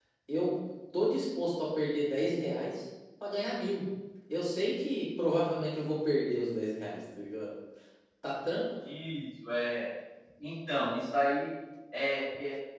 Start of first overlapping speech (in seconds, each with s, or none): none